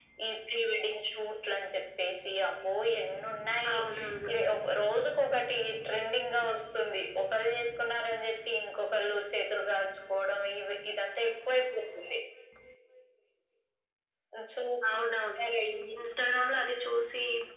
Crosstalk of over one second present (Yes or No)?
No